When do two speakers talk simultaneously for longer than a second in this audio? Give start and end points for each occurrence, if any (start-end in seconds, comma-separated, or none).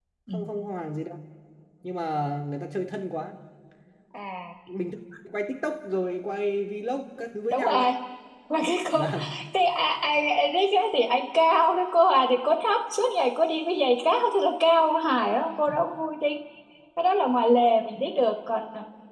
none